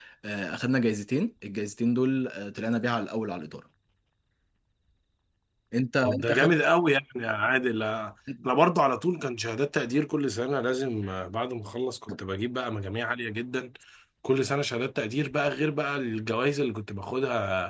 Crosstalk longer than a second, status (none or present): none